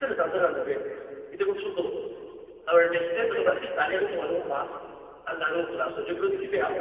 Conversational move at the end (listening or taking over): listening